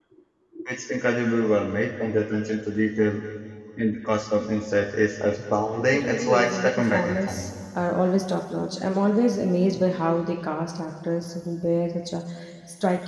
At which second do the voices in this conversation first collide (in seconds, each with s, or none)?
5.8 s